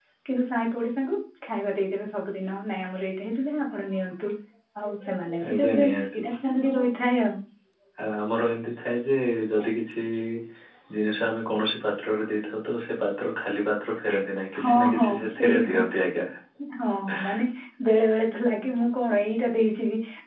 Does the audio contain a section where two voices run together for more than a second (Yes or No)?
Yes